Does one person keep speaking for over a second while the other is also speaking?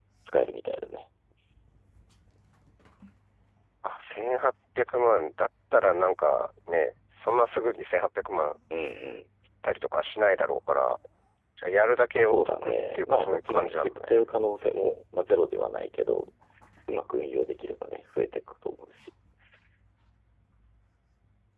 Yes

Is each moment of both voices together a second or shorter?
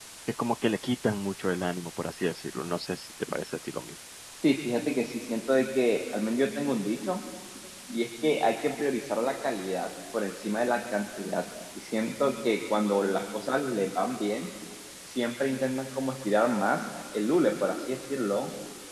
Yes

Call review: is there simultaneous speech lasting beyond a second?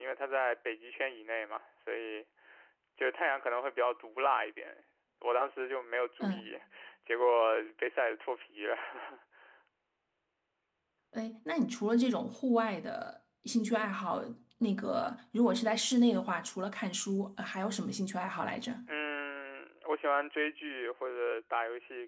No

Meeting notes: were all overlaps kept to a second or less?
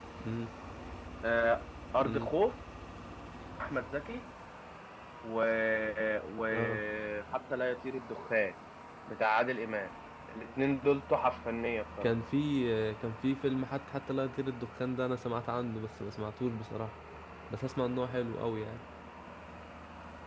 Yes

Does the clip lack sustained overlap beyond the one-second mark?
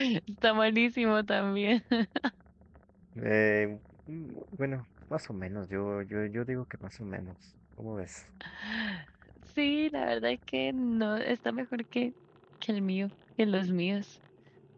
Yes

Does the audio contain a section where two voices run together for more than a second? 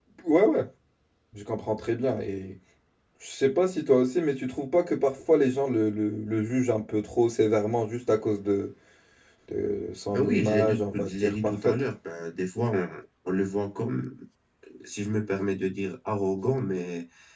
Yes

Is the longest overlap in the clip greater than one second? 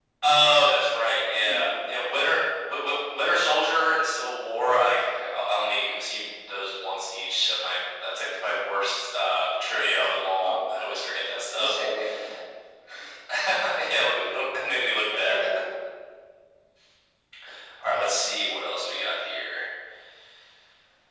No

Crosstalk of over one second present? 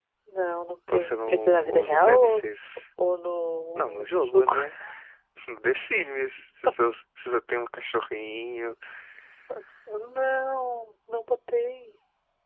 Yes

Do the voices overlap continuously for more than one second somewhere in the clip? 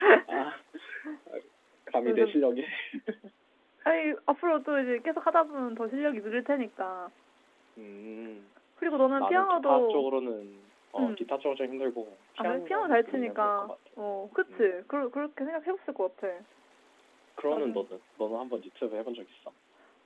Yes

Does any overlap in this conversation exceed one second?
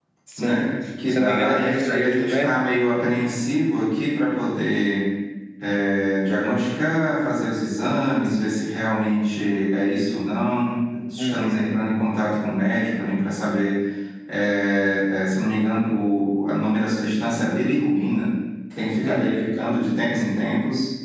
Yes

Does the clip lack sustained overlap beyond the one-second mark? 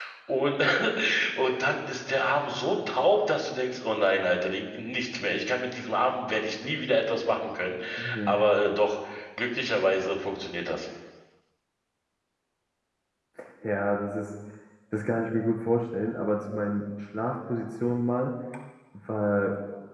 Yes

